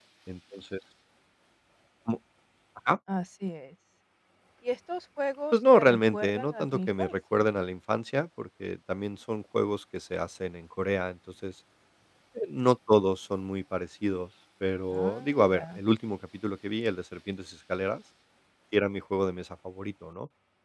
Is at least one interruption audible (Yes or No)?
Yes